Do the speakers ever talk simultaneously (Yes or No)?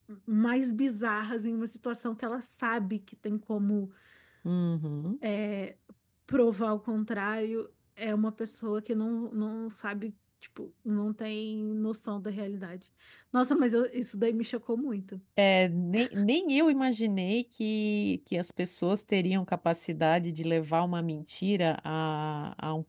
No